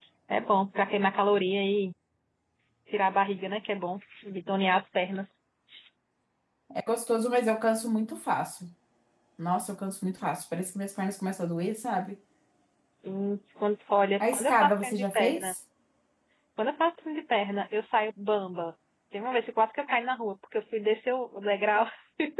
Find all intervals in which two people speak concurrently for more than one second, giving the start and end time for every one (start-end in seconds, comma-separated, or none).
14.3-15.5